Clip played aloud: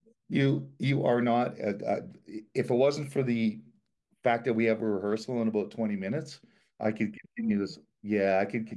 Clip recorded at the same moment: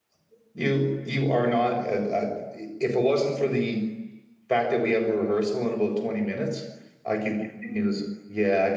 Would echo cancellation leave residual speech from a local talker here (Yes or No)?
No